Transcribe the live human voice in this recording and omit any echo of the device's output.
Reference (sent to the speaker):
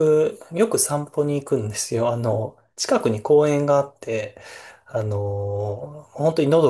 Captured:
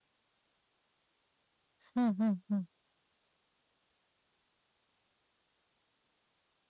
うんうんうん。

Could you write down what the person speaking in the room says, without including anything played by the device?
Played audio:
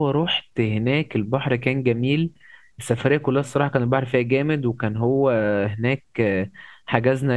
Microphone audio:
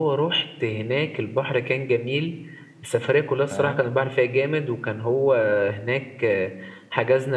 فاهم

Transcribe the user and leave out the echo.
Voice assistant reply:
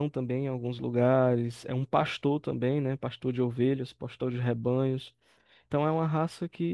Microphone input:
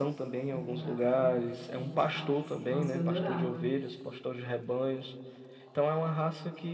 quando eu morava com, com meus pais. Nossa, eu adorava.

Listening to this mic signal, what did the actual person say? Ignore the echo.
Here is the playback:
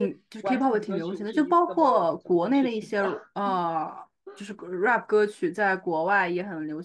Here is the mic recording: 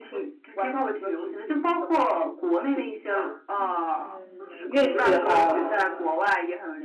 嗯，乐器的话，

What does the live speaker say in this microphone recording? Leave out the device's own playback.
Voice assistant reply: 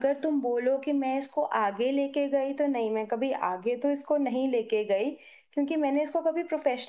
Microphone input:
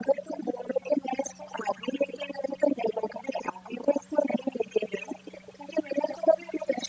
none

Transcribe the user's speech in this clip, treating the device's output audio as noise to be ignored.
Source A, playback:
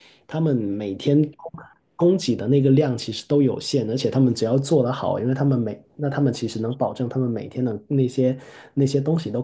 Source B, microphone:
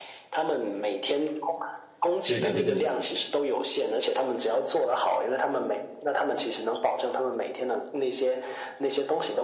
对对对对，

